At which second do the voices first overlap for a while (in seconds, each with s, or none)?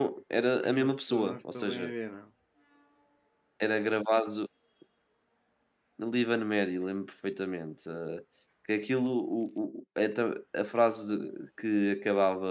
0.6 s